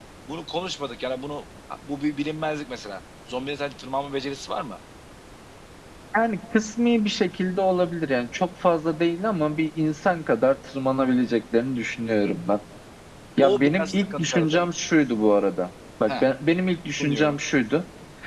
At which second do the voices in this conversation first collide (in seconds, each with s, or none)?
13.4 s